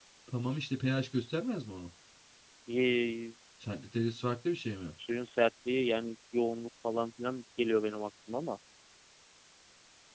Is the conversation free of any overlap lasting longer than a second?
Yes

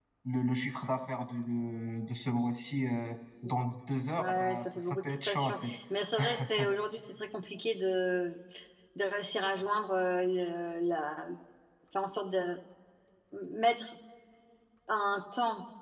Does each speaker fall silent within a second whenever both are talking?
No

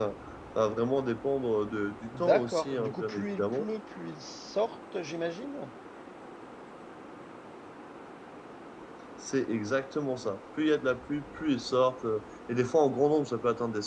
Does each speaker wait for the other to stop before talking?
No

